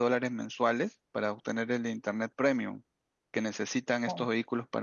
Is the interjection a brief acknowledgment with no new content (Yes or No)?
Yes